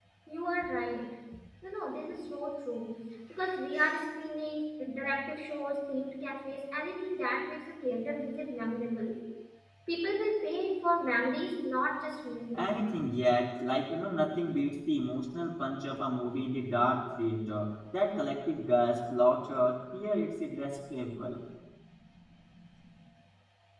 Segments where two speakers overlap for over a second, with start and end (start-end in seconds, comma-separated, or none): none